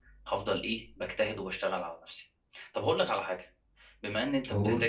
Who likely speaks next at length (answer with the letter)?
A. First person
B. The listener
A